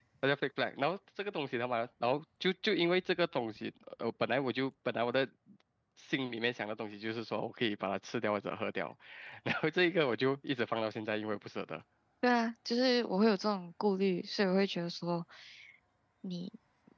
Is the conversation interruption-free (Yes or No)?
Yes